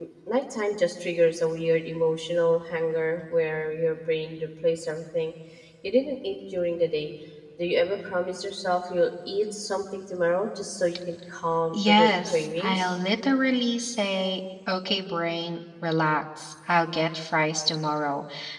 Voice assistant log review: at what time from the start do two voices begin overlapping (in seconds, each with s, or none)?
11.7 s